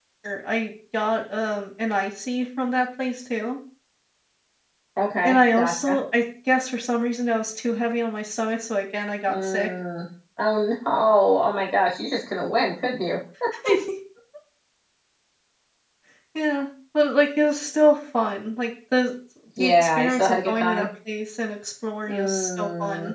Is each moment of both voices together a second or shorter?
No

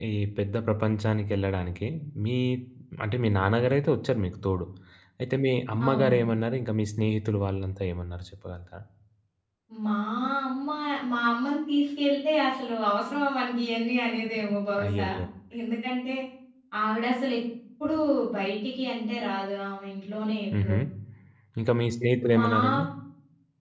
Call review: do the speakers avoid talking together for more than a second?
Yes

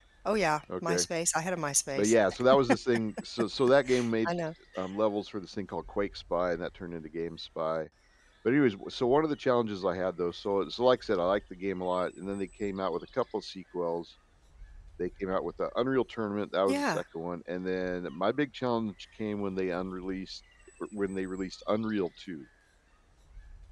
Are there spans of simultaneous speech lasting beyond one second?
No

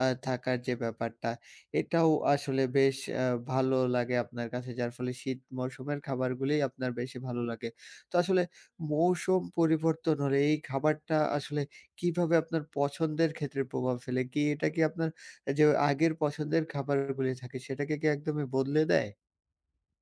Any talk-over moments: No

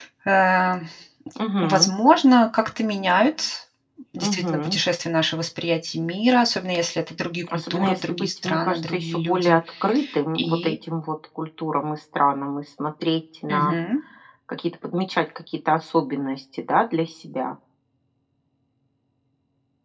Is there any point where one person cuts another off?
Yes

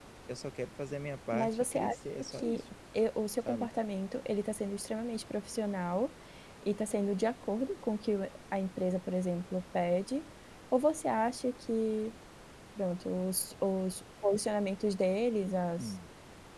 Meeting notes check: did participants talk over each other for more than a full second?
Yes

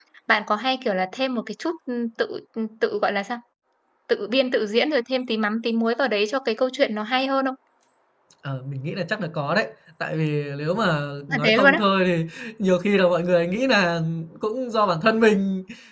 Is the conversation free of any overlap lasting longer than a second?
Yes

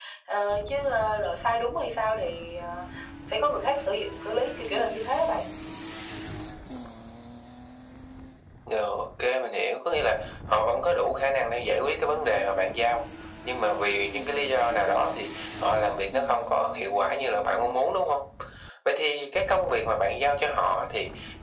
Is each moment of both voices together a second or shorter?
Yes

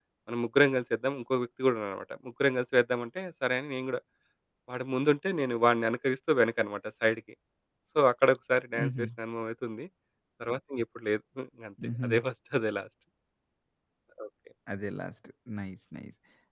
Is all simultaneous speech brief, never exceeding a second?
Yes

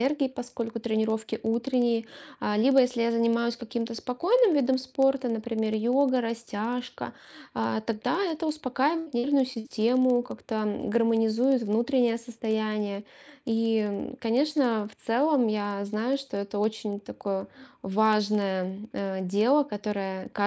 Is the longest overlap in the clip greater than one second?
No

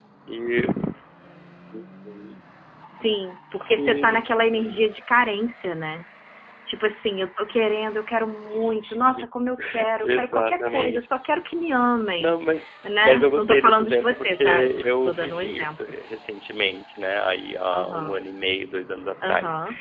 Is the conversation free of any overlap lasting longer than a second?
No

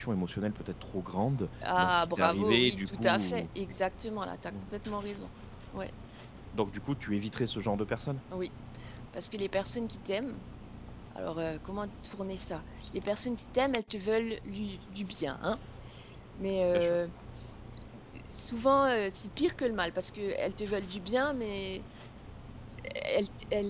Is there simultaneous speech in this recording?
Yes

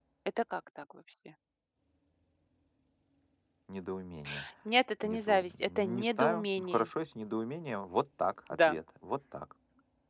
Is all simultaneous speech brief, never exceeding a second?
No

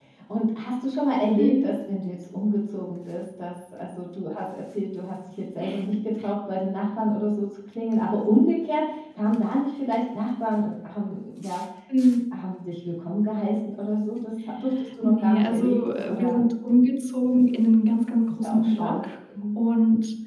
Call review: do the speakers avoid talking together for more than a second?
No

